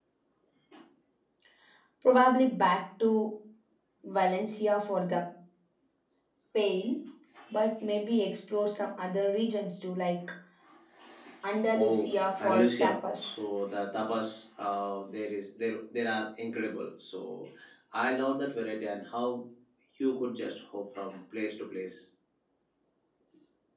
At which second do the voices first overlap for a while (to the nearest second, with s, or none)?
12 s